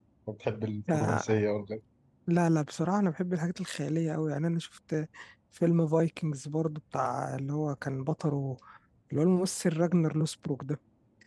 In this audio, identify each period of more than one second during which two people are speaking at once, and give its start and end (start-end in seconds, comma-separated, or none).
none